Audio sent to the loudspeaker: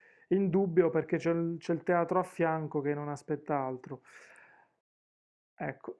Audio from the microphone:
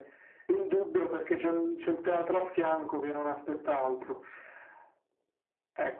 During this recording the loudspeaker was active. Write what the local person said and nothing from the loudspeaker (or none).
none